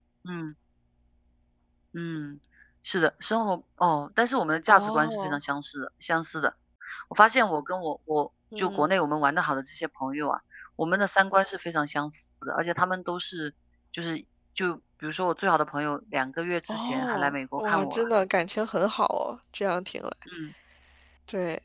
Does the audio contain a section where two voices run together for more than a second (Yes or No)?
Yes